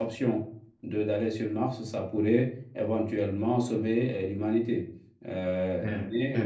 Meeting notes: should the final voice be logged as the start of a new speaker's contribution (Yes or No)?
Yes